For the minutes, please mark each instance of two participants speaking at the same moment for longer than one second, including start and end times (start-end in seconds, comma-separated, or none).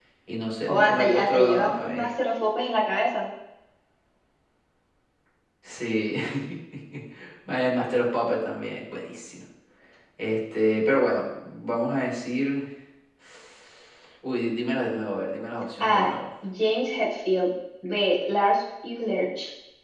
0.7-2.1